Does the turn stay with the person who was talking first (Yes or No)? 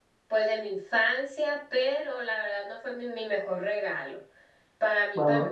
Yes